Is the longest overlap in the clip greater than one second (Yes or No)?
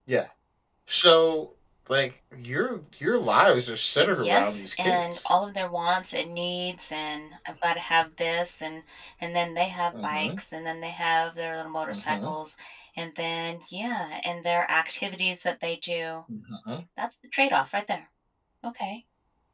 Yes